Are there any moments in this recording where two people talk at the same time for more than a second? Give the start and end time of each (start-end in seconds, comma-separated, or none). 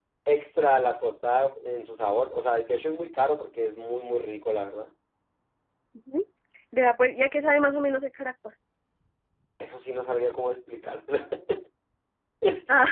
none